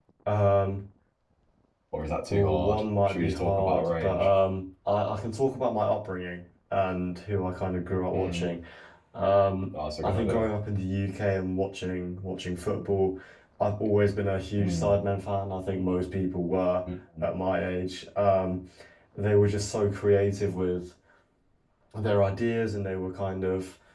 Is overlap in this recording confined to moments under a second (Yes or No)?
No